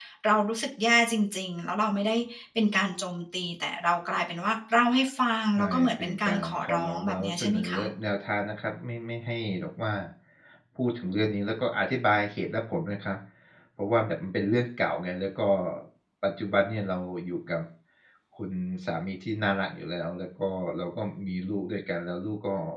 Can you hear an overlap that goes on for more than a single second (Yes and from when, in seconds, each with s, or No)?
Yes, from 5.6 s